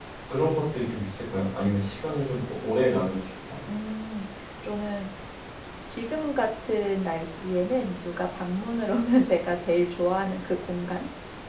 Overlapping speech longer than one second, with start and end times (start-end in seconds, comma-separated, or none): none